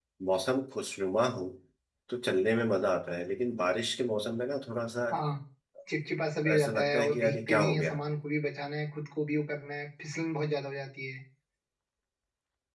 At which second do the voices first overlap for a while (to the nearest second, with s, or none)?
7 s